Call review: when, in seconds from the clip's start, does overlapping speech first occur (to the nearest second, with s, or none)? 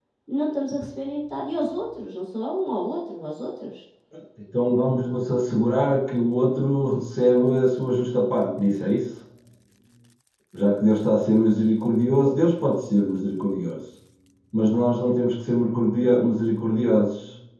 none